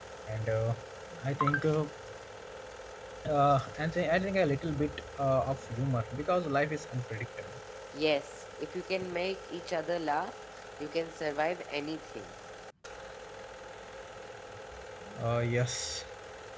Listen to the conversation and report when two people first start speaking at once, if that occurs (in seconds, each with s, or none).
none